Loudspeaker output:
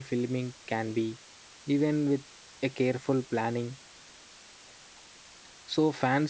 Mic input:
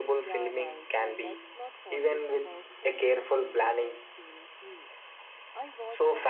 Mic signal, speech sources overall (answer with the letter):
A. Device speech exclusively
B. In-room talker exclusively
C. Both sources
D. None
C